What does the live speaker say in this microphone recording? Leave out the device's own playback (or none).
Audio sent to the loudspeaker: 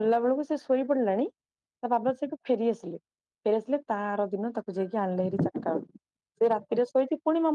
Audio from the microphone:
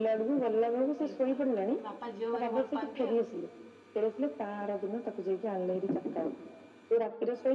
ଏ ବାପା ବାପା ଝିଅକୁ ଭାରି ଭଲ ପାଆନ୍ତି ଆଉ